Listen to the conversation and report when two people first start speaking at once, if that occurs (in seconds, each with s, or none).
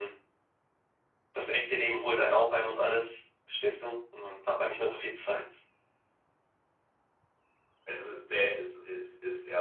none